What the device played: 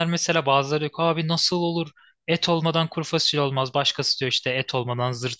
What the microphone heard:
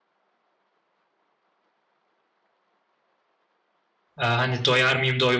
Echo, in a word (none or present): none